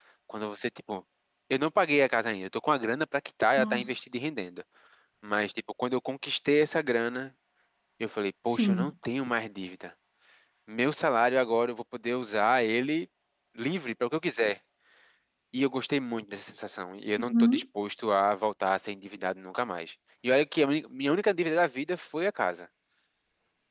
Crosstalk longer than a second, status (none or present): none